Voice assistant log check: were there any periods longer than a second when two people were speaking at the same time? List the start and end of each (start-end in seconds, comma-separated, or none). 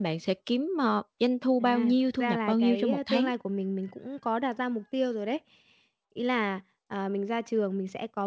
1.6-3.3